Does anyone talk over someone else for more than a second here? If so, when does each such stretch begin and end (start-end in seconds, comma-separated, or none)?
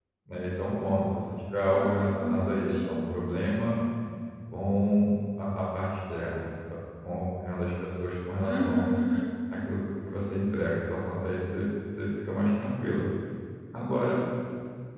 1.7-3.0